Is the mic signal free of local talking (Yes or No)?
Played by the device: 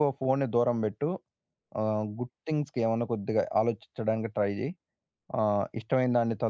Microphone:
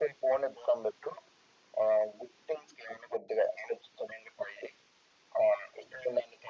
Yes